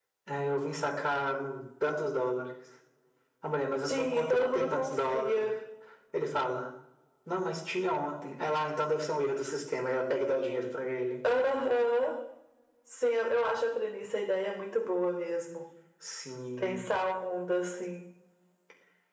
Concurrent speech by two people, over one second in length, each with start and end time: 3.8-5.5

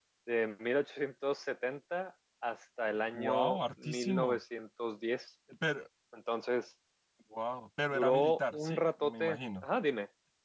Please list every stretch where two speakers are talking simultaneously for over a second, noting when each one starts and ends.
3.1-4.4, 7.9-9.7

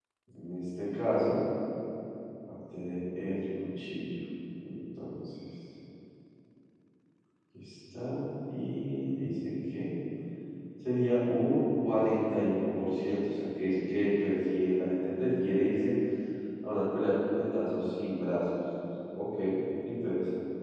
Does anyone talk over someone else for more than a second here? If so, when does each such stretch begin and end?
none

